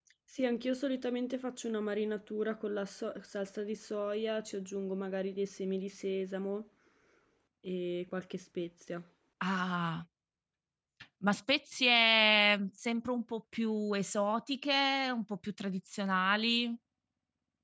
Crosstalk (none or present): none